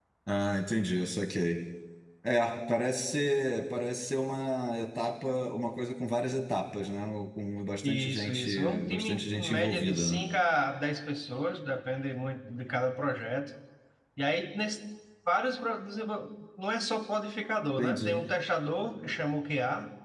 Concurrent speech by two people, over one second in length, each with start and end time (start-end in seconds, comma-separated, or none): 7.8-10.2